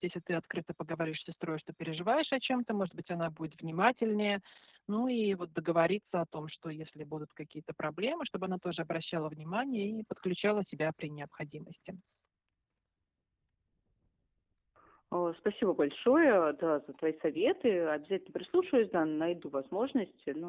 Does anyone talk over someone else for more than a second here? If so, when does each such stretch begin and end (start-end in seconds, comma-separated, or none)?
none